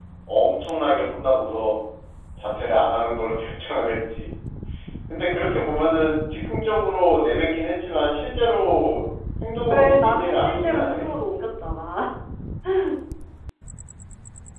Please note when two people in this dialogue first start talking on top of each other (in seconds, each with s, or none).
9.7 s